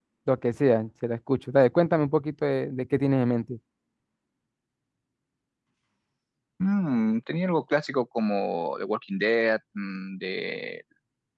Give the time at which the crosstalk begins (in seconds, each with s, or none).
none